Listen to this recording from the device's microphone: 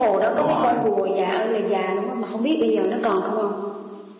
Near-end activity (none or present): present